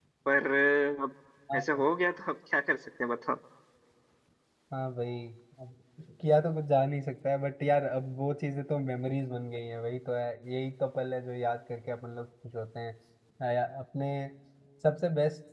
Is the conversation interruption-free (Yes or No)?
Yes